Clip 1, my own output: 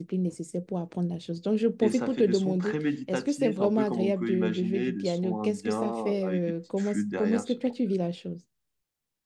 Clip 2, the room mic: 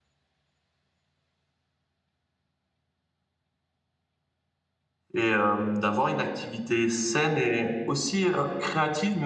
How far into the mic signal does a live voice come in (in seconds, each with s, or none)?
5.1 s